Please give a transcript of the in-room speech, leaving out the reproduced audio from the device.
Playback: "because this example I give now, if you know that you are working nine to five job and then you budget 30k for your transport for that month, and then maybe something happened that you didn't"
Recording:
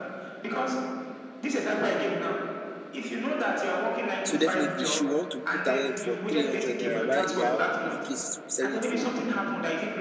So definitely she want to put her own for three hundred naira while Iya Bilkis is selling it for

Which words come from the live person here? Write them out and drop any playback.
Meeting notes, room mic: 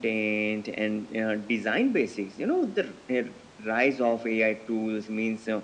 none

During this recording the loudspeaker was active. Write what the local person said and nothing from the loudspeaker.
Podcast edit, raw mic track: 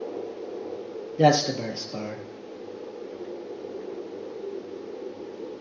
That's the best part.

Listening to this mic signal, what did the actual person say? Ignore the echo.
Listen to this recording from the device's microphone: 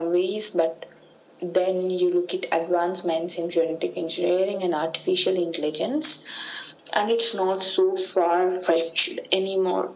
none

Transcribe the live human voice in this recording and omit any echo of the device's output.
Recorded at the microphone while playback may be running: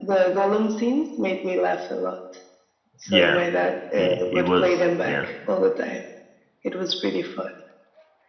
Yeah. he he was yeah.

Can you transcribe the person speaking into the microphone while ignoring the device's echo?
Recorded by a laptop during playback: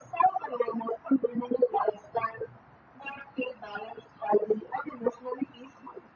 none

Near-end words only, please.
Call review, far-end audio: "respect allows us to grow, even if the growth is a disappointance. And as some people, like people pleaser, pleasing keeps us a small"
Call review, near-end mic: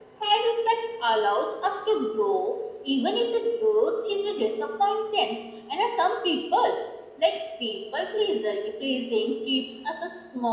none

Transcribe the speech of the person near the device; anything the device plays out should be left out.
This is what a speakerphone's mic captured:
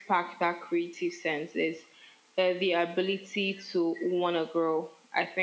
none

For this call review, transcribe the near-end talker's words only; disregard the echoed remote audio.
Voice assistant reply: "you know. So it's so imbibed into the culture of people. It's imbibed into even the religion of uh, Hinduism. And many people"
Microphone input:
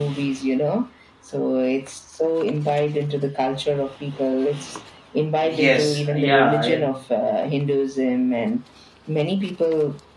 Yes, yeah, it,

